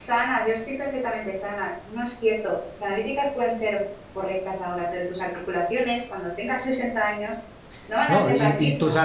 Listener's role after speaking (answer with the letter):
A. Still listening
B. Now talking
B